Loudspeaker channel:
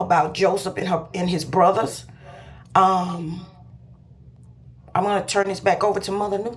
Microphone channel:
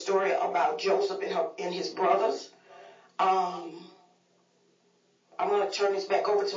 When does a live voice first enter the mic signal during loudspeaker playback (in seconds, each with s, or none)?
none